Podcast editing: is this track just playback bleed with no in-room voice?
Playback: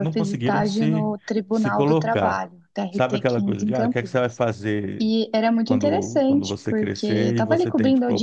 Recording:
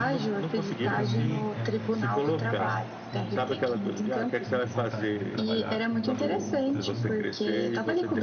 No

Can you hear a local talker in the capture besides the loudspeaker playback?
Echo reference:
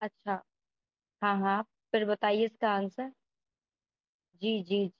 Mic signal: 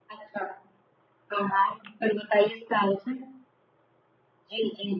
No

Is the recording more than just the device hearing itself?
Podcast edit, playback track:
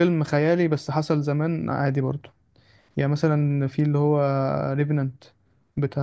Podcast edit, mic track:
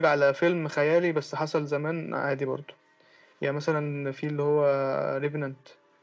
No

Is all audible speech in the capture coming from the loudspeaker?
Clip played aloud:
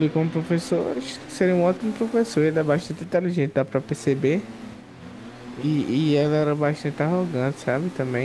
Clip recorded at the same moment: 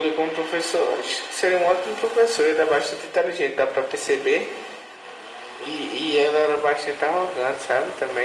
Yes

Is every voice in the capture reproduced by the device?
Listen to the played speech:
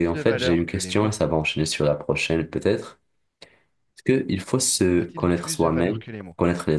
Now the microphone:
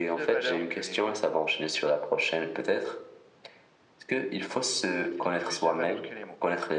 Yes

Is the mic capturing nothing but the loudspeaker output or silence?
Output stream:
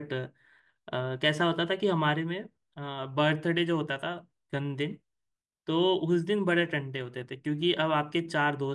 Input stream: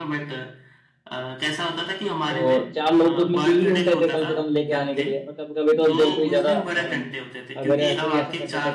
No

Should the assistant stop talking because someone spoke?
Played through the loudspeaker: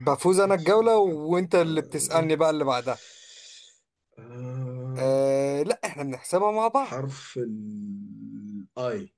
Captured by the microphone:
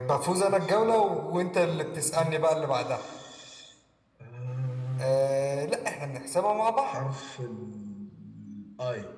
No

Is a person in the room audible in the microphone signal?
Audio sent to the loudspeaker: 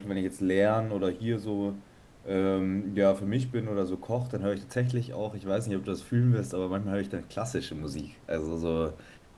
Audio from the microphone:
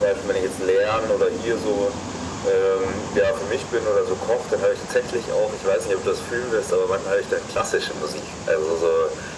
No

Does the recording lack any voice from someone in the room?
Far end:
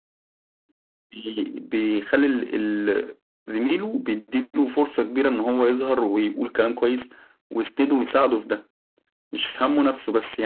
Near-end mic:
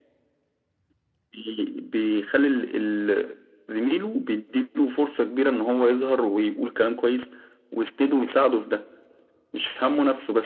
Yes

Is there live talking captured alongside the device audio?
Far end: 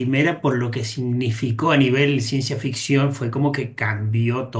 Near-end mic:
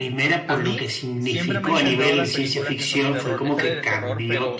Yes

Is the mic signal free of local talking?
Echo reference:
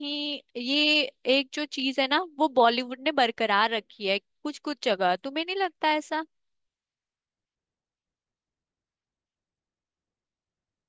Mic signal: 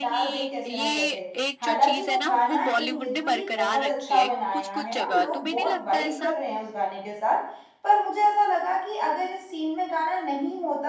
No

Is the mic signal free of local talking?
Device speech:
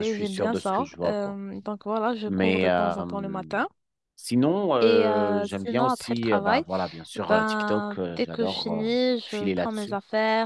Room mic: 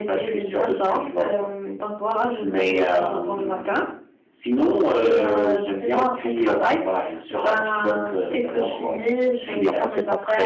No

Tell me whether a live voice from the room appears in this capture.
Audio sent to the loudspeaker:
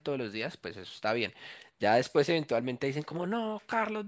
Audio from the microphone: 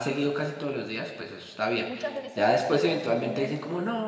Yes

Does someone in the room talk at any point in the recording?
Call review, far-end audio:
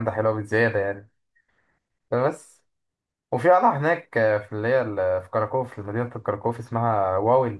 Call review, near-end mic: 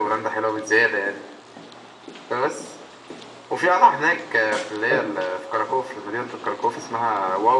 Yes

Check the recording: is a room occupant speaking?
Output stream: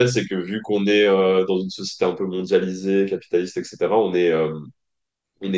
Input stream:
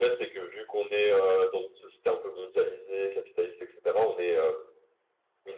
No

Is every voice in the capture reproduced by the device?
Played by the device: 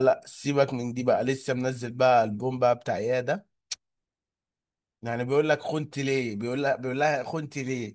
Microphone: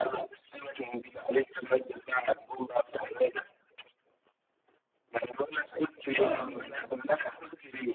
No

